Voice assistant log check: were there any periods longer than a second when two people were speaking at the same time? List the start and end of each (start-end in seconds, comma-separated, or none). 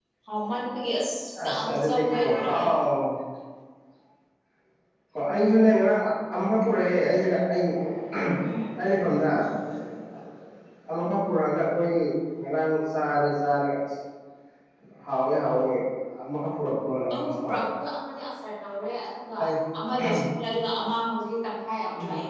1.4-2.6